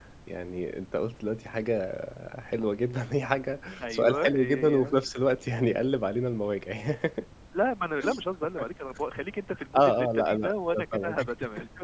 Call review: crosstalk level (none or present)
present